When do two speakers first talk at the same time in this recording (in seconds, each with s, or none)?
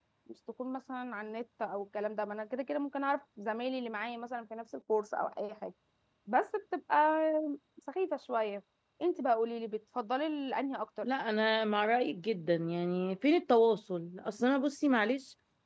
none